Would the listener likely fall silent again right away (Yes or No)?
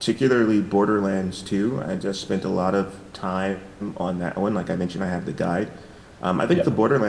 Yes